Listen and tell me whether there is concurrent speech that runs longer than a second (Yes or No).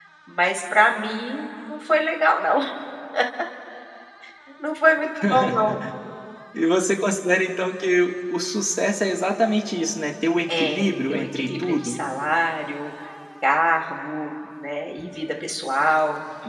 Yes